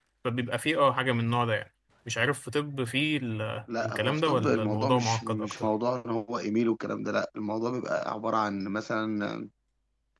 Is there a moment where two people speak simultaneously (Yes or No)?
Yes